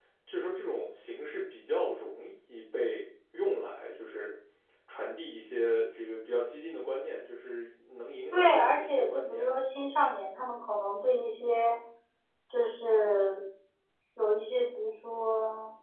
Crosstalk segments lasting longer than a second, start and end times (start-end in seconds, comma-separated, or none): 8.3-9.5